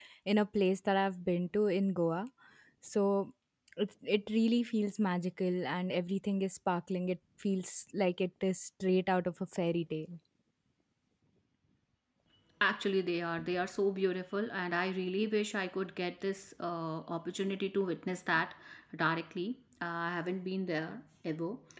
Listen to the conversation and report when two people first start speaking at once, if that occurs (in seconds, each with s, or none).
none